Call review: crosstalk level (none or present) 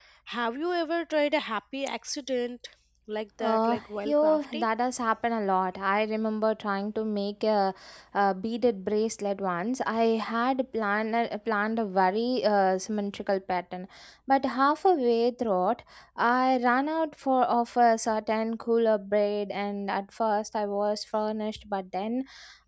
present